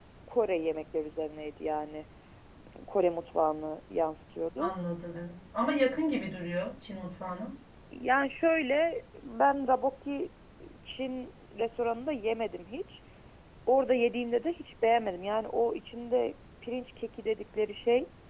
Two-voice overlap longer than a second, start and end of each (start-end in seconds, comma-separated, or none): none